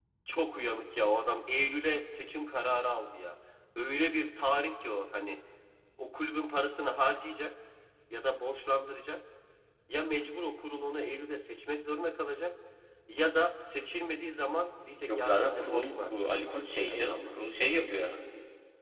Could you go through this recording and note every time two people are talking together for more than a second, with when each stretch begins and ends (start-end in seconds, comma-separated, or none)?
15.1-16.4